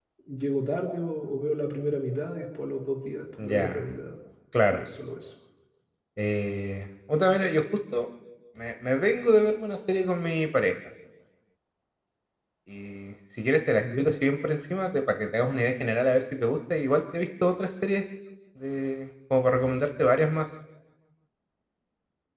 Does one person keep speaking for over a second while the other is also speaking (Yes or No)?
No